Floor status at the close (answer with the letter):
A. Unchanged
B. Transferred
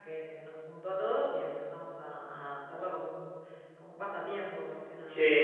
B